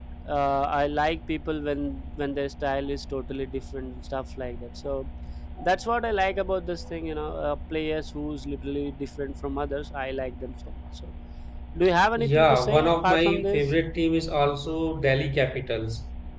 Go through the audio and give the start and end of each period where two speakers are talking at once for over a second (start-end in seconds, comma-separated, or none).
12.2-13.6